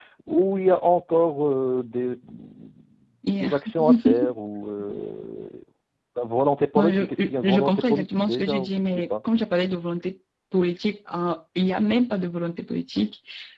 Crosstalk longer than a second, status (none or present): present